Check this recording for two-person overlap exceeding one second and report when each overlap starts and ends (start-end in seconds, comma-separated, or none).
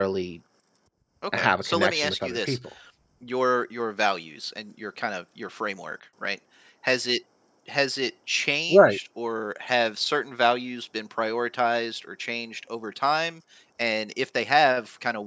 1.3-2.6